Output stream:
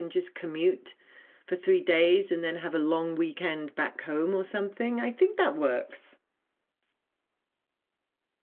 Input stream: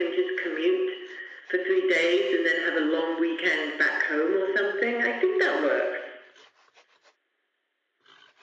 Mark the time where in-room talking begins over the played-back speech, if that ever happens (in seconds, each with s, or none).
none